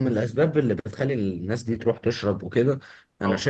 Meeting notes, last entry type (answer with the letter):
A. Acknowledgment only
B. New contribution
A